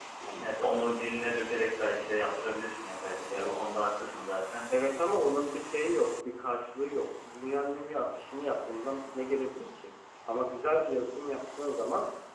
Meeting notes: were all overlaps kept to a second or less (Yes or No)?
Yes